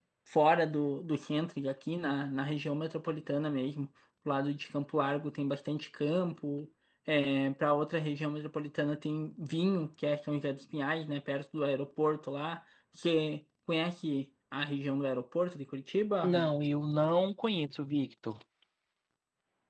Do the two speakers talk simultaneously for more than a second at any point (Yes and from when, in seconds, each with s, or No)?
No